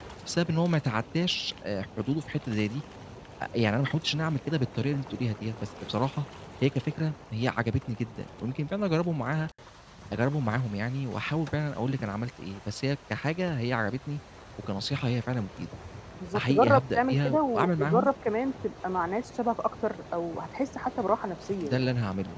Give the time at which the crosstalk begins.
16.4 s

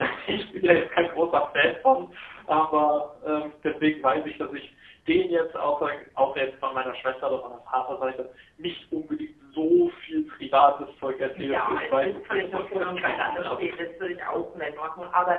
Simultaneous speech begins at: 11.3 s

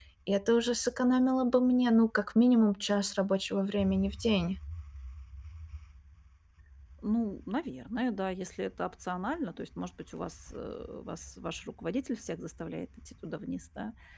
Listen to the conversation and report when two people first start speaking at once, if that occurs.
none

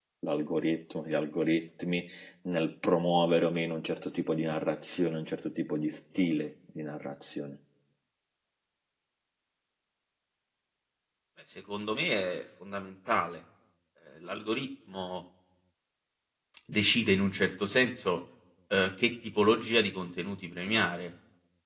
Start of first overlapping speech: none

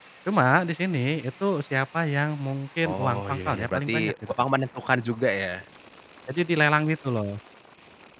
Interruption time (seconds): 2.8 s

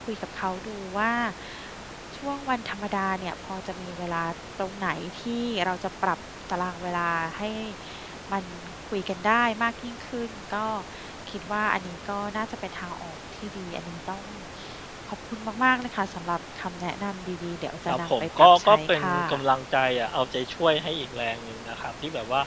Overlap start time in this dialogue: 17.9 s

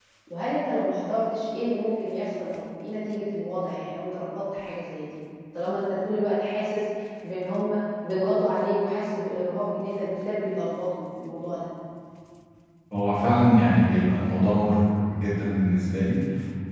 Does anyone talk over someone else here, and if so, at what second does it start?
none

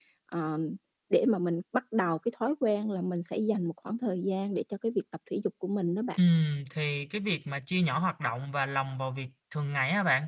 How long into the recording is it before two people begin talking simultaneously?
none

